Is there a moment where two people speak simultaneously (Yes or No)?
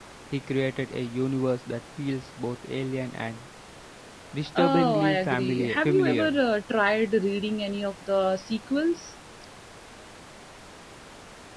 Yes